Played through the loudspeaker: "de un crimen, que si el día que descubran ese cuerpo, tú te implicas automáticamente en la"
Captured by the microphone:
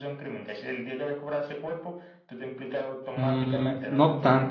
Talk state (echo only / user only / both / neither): both